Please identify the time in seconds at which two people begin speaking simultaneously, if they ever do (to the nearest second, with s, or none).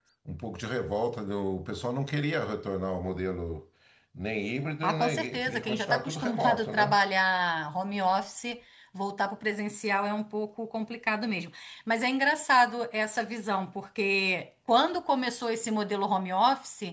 5 s